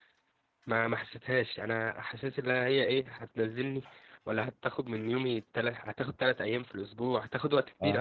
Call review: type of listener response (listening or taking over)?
listening